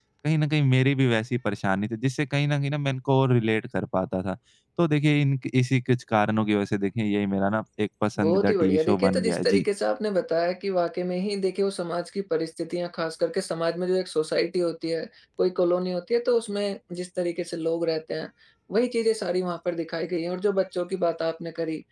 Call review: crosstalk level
present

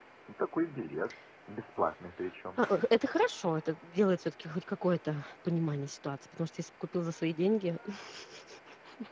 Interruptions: none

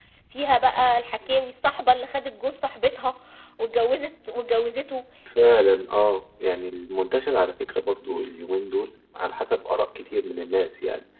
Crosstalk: none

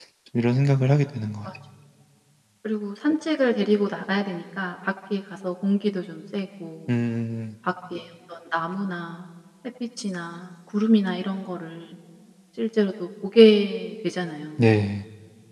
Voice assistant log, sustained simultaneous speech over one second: none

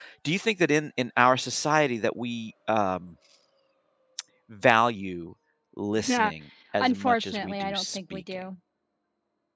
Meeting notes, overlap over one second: present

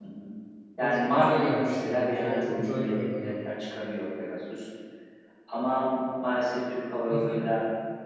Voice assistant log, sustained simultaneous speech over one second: present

